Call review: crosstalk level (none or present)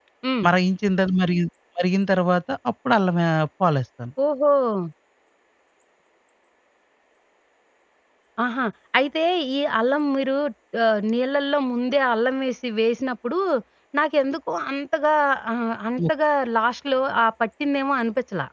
none